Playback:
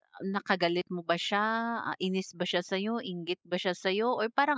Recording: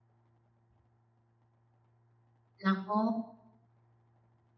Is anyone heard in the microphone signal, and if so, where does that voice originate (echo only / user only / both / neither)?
user only